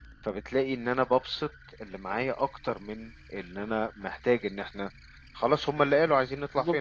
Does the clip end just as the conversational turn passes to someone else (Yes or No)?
Yes